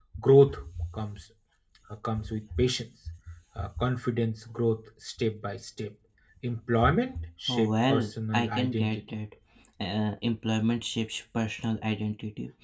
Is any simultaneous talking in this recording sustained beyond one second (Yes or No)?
Yes